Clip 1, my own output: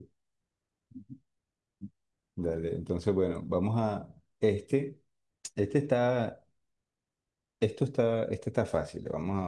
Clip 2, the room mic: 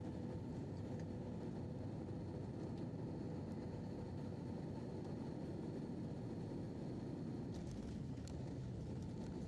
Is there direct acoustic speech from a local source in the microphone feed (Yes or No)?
No